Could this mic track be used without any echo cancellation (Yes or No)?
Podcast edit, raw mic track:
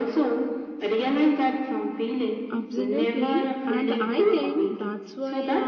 No